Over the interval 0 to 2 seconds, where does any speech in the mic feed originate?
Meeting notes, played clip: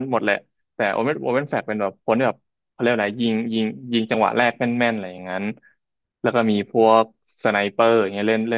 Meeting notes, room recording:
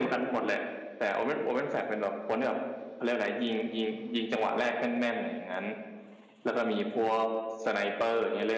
echo only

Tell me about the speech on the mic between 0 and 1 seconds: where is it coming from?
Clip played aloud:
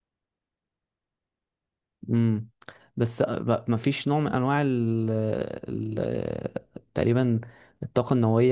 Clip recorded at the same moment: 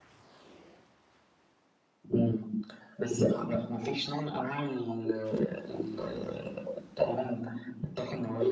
neither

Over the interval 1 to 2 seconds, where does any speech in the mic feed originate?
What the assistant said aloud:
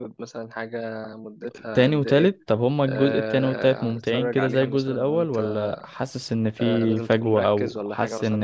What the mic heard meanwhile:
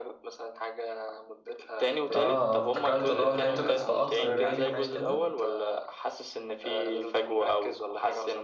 echo only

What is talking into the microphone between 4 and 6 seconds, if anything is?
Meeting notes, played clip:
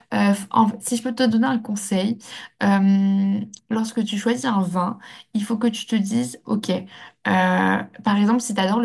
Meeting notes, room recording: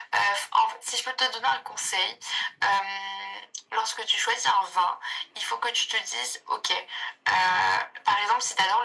echo only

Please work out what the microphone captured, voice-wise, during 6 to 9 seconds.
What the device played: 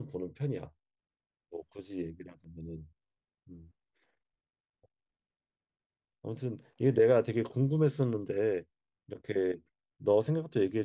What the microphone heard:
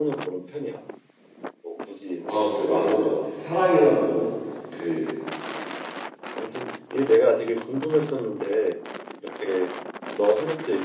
echo only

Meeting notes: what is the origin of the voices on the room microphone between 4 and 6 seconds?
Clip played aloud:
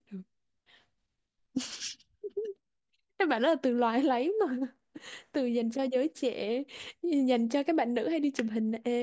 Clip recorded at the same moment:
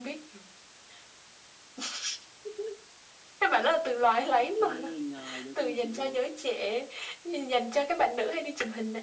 both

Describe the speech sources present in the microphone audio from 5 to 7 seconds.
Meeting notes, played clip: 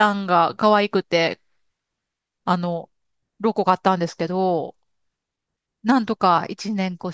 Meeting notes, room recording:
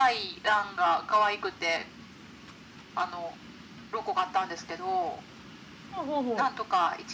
both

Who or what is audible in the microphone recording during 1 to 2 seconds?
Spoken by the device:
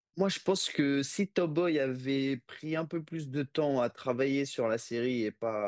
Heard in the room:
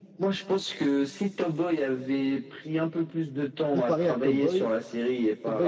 echo only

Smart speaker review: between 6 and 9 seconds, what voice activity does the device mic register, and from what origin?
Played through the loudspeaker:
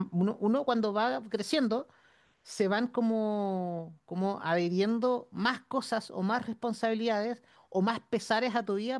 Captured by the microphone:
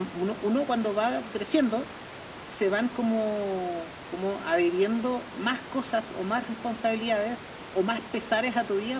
echo only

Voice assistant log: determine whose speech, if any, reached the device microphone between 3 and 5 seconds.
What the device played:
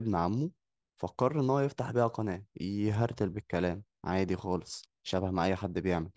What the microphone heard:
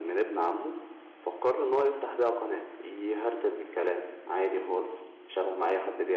echo only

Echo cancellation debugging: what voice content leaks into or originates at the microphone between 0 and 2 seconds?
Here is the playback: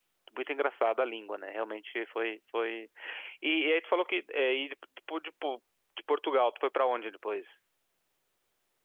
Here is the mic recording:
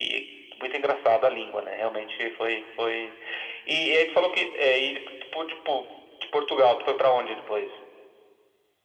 echo only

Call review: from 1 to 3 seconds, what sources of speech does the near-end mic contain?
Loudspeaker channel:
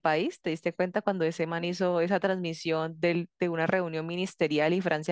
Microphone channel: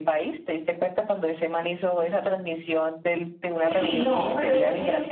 echo only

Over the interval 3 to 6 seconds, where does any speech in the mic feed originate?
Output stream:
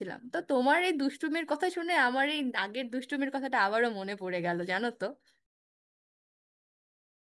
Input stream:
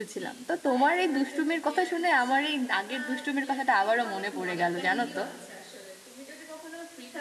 both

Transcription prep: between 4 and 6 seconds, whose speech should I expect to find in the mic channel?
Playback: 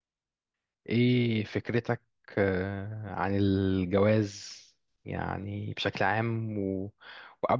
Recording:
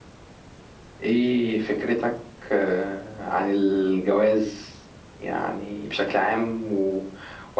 echo only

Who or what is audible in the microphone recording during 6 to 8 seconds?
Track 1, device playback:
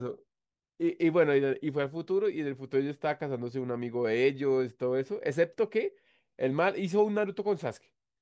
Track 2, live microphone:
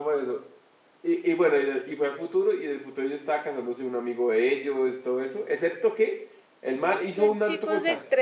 both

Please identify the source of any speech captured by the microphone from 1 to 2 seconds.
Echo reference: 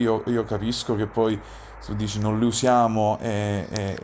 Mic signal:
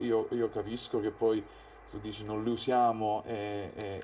echo only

